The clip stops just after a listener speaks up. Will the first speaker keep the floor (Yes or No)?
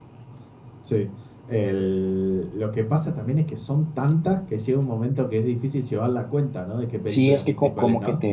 No